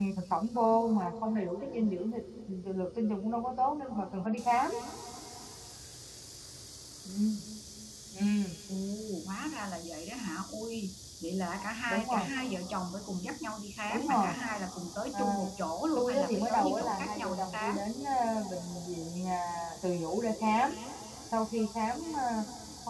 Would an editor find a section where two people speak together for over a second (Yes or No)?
Yes